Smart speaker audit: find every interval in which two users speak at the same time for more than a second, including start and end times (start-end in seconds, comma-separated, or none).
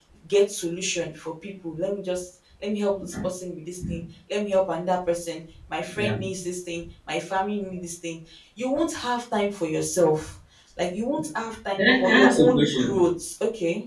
11.8-13.0